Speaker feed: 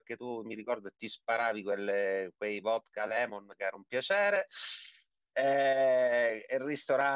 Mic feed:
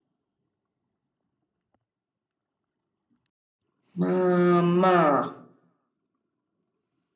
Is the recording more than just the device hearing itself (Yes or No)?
Yes